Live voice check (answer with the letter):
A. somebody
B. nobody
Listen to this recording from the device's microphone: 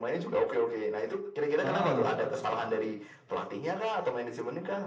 A